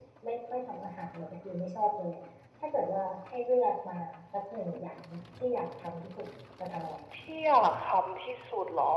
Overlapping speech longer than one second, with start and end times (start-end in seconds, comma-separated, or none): none